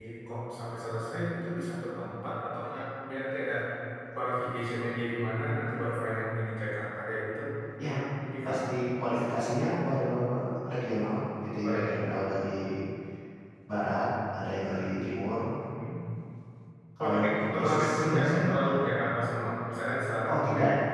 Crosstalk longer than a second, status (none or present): present